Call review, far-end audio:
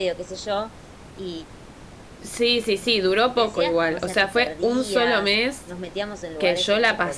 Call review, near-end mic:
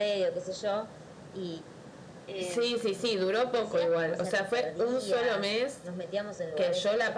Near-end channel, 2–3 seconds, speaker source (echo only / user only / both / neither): both